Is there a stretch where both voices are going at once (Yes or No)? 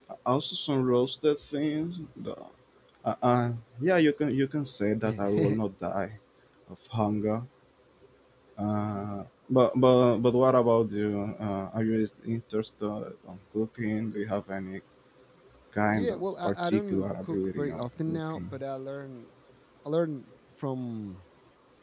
Yes